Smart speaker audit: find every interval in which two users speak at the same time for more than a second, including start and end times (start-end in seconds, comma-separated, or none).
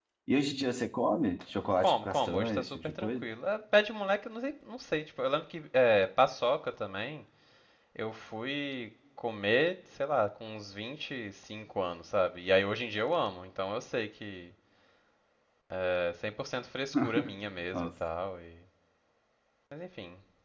1.8-3.2